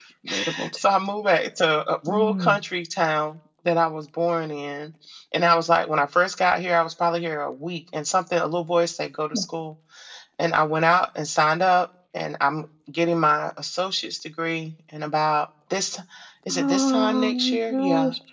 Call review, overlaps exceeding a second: present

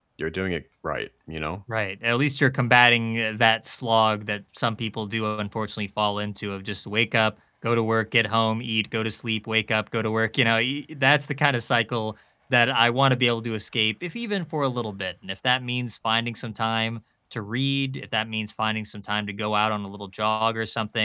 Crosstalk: none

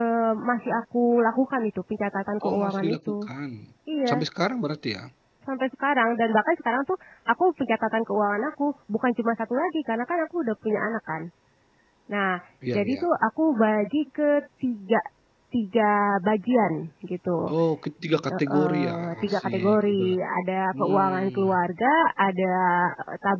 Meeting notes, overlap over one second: present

